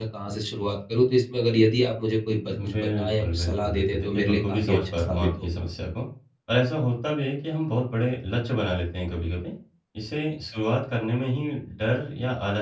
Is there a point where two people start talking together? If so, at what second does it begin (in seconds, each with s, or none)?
2.6 s